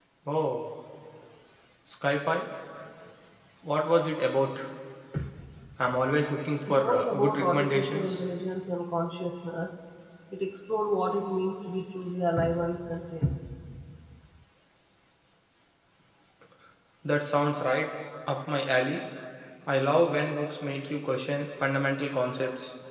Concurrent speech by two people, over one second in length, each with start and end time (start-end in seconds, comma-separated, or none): 6.7-8.2